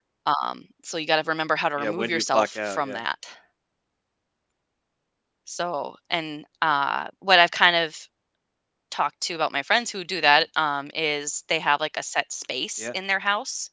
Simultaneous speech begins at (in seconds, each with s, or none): 1.8 s